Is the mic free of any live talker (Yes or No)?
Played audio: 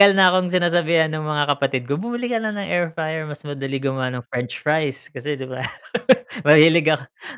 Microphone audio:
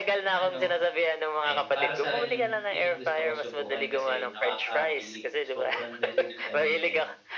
No